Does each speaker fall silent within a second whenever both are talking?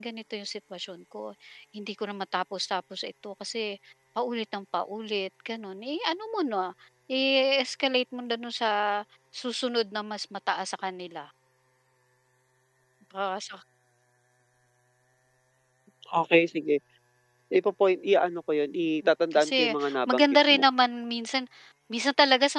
No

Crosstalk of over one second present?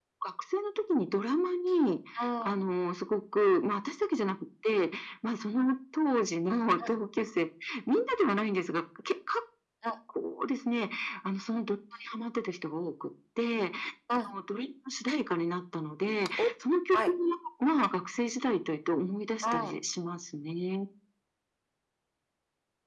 No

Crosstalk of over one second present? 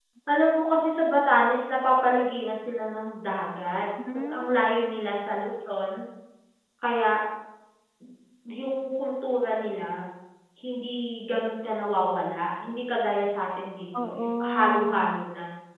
Yes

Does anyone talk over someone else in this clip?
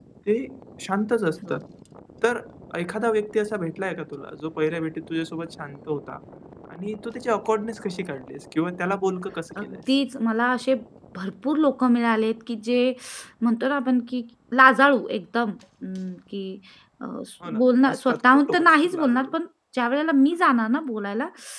Yes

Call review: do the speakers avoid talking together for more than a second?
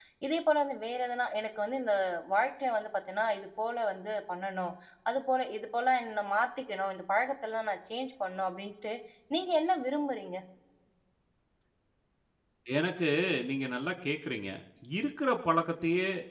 Yes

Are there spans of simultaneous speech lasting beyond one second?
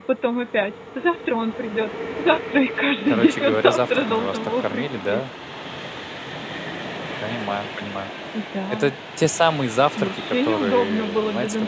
Yes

